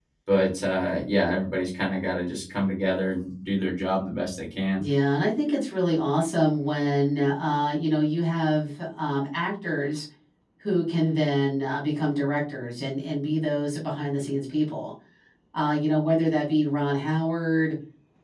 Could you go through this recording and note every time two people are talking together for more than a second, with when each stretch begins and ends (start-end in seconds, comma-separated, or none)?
none